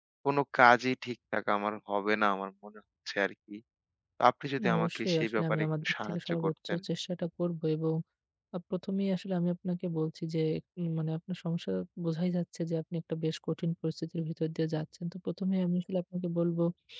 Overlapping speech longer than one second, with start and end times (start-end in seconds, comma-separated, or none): 4.6-6.8